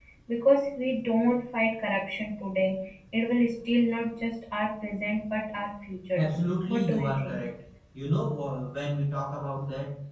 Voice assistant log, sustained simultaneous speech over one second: present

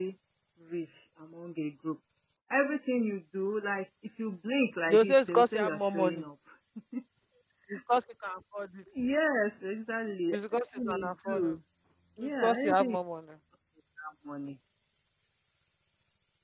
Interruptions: present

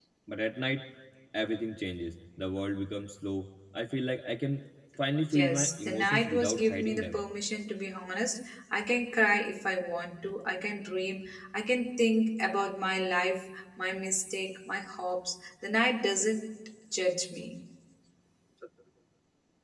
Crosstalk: present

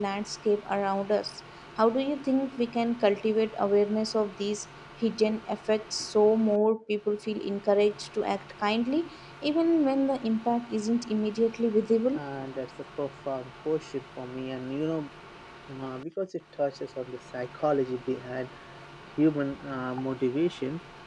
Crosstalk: none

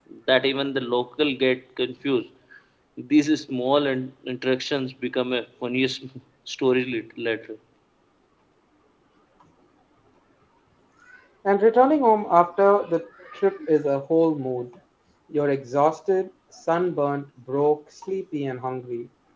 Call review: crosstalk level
none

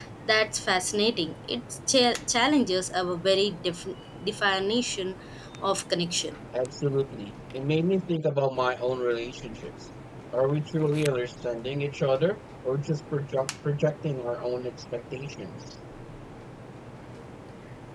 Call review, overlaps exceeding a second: none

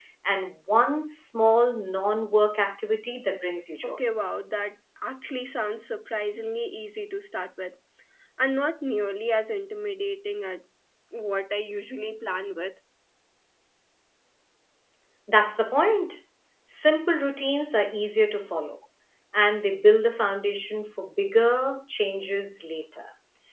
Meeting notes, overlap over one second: none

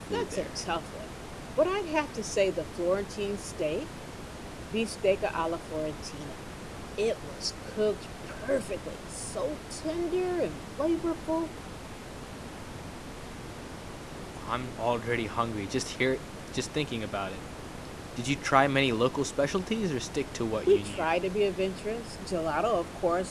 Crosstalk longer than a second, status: none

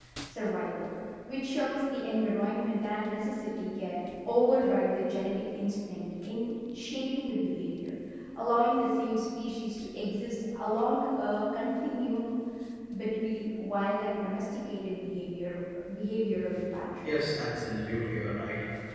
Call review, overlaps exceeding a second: none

